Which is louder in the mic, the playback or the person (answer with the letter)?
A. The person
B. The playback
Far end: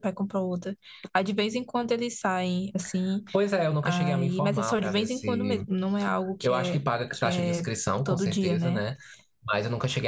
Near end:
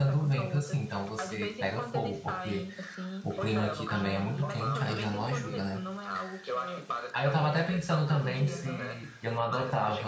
A